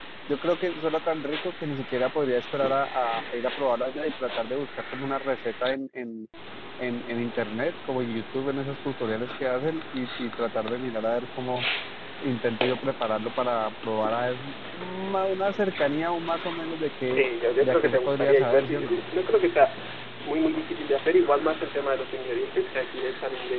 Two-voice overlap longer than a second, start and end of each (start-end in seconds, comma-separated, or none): 17.6-19.0